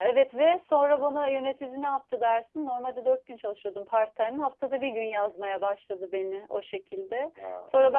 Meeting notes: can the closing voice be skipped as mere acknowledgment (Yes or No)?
Yes